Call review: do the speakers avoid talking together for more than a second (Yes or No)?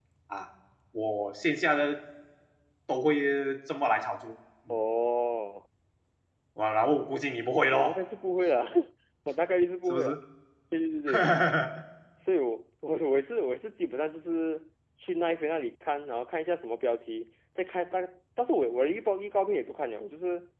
Yes